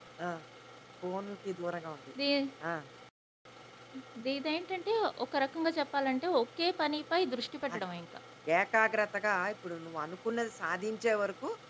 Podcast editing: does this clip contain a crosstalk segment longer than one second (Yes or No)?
No